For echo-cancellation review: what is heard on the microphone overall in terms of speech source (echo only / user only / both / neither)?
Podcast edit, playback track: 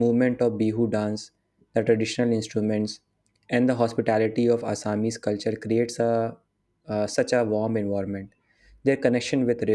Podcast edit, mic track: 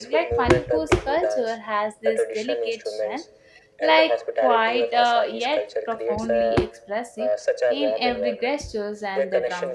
both